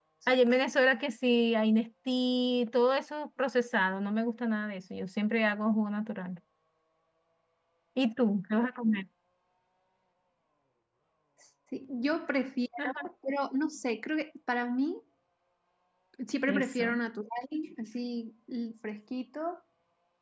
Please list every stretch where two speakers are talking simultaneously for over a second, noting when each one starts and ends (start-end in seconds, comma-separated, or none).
none